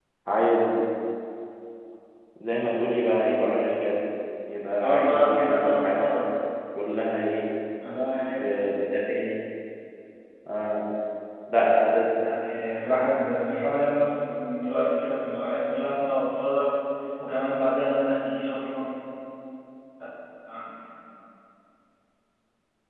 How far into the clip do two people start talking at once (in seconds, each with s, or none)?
4.8 s